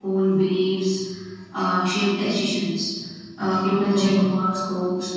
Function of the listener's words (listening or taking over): listening